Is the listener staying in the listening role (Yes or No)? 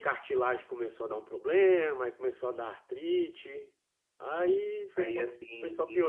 No